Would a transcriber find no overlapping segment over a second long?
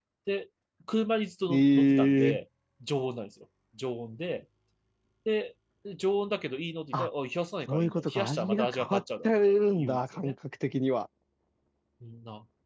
No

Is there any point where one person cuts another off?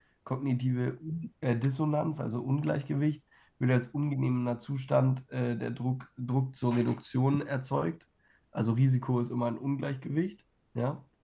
No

